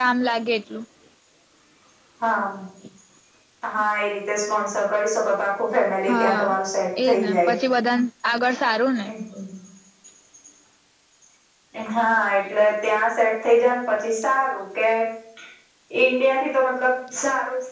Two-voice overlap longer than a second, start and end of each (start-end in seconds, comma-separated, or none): none